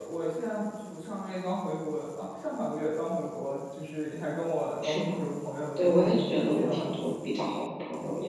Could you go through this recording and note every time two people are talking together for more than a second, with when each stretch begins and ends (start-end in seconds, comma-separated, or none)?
5.8-7.1